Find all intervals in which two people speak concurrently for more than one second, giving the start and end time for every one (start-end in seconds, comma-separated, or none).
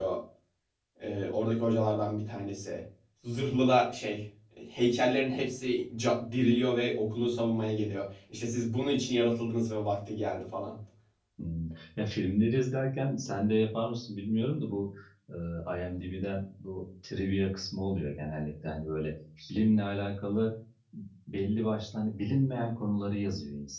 none